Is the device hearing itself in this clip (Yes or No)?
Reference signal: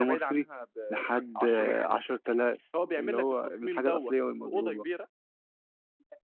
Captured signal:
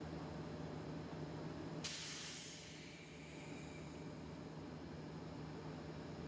No